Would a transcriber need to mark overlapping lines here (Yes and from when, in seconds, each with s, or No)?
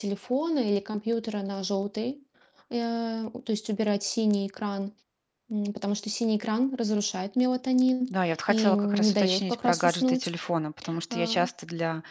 Yes, from 8.5 s